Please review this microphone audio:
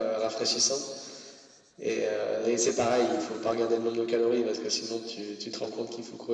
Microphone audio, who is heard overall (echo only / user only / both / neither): echo only